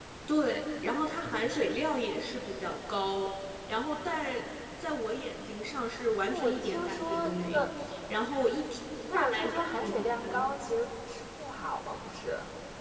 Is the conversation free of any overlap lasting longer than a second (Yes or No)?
No